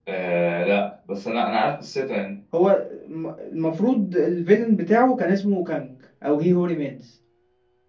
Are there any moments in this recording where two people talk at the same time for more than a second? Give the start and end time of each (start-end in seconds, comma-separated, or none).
none